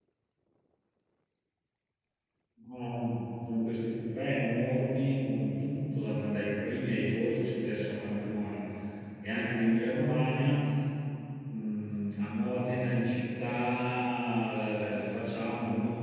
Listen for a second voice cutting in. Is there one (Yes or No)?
No